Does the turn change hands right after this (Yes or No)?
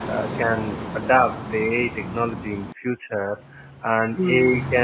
No